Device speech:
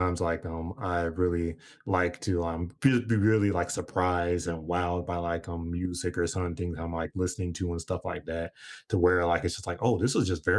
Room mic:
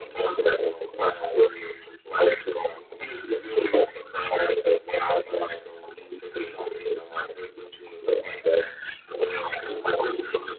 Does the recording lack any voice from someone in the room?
Yes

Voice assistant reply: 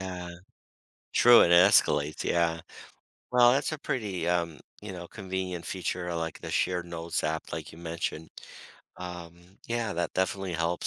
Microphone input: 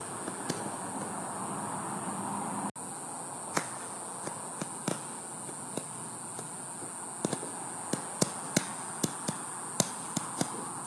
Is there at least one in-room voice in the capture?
No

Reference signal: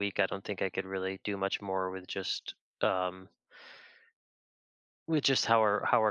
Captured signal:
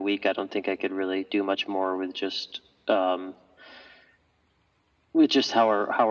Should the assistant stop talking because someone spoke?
No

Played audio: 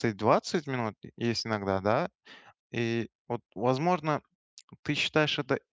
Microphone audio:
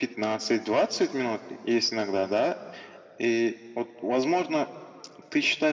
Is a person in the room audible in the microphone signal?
No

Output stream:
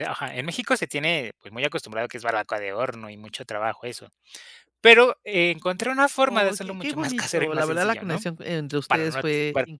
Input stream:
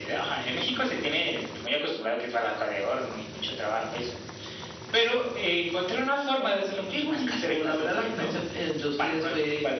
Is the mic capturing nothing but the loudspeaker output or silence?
Yes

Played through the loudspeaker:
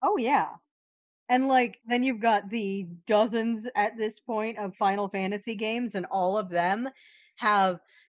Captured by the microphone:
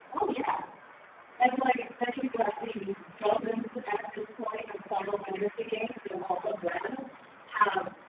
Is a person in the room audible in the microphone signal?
No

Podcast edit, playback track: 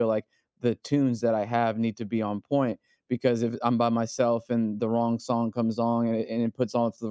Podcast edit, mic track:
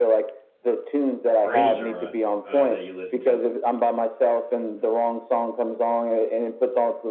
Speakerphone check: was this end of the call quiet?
No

